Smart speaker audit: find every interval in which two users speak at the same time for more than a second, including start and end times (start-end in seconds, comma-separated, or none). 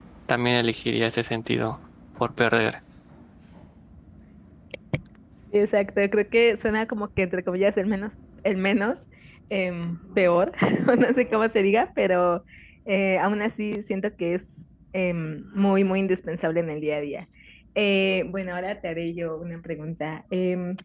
none